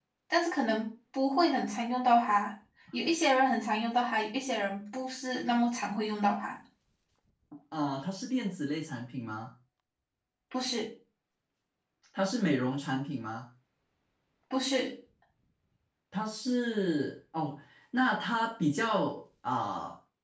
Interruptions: none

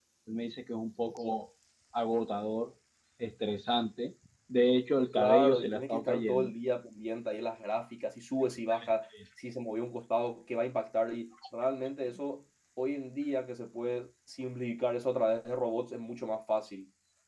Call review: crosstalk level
present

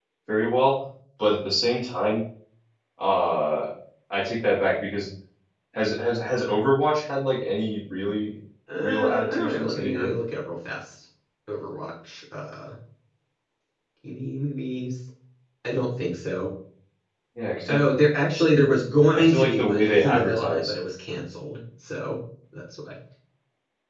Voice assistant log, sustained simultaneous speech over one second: present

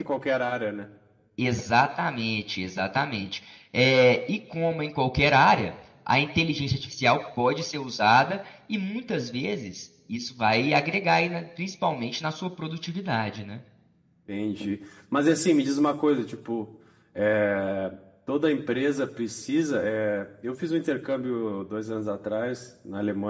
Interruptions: none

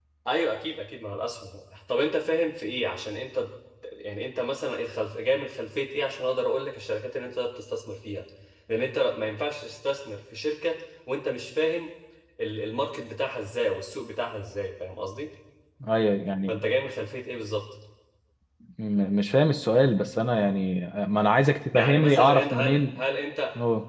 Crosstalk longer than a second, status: present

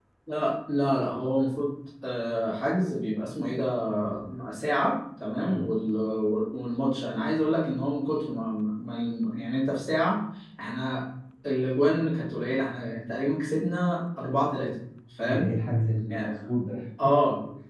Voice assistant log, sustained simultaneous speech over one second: none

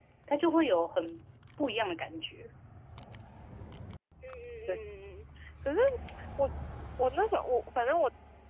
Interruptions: none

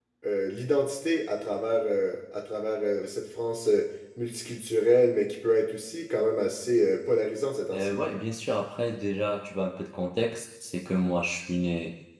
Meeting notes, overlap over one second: none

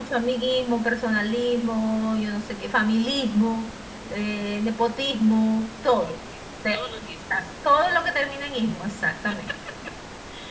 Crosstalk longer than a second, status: none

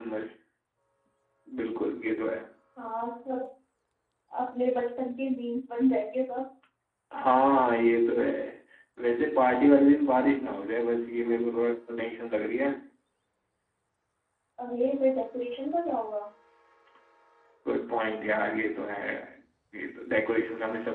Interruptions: none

